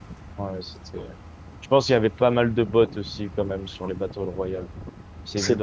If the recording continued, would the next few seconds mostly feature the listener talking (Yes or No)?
Yes